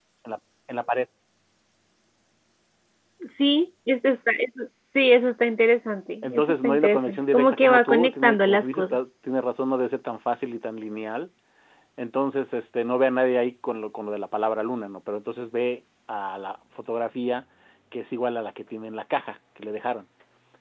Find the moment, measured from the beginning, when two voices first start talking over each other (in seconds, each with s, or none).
6.2 s